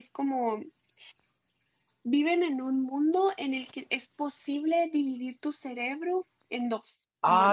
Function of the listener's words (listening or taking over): taking over